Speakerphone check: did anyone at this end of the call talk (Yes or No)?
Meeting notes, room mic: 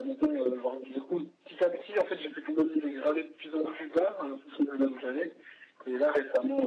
No